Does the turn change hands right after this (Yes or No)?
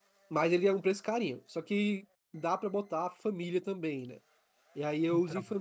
No